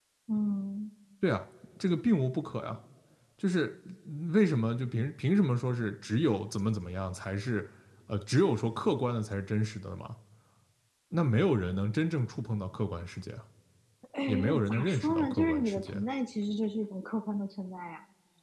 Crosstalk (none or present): present